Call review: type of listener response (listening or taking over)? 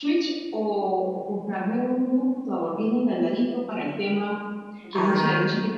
listening